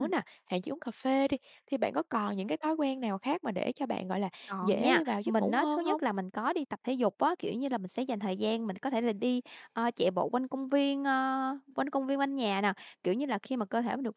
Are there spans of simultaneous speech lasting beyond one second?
Yes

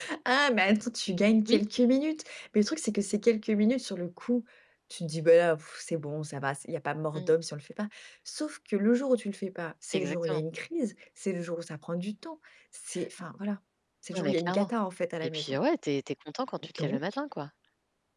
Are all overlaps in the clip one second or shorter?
Yes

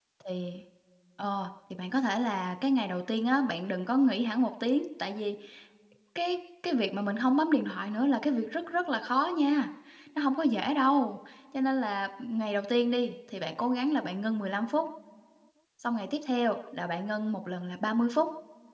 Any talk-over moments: No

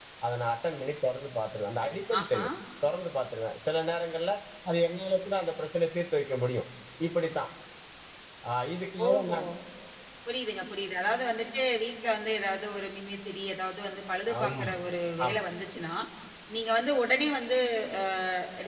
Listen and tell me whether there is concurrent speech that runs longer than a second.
No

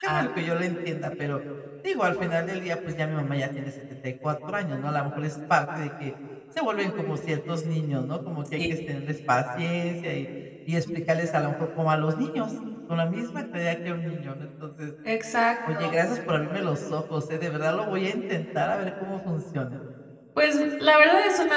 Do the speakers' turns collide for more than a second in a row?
No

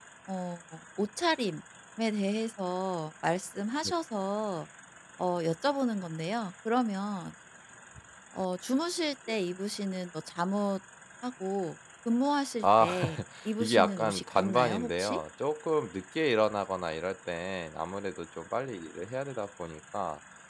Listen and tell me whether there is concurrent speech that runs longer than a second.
Yes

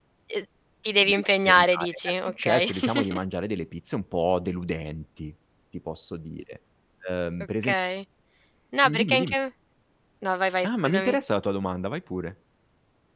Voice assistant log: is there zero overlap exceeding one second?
No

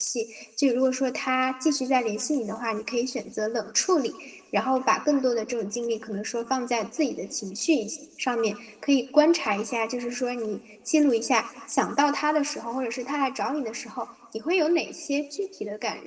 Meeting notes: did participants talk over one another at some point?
No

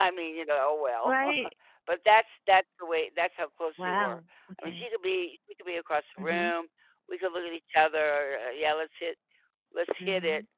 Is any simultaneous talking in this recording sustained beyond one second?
No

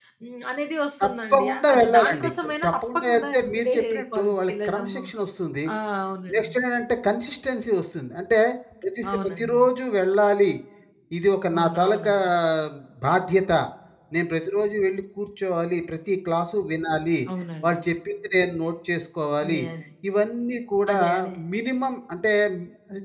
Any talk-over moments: Yes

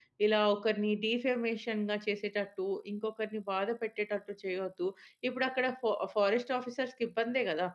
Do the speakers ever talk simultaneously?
No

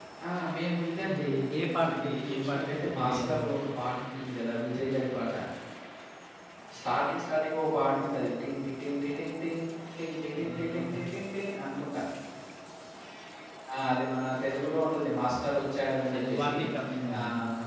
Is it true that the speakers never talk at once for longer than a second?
No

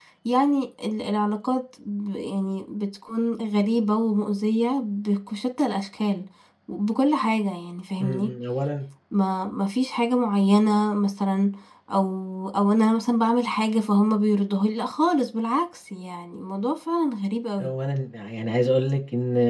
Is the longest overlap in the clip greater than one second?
No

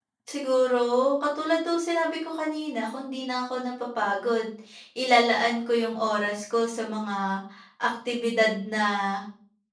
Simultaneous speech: No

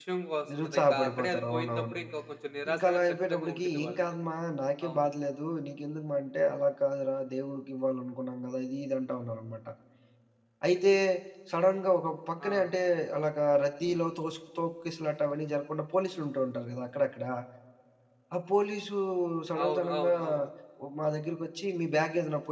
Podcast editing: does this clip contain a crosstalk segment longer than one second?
Yes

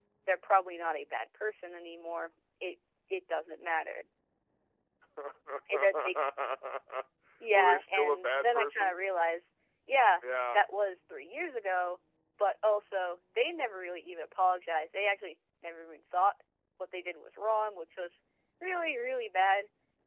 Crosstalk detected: Yes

